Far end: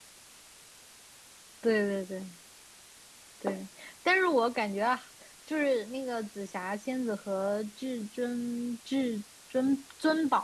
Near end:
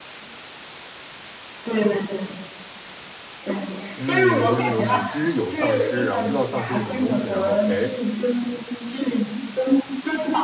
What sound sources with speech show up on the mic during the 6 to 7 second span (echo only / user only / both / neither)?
both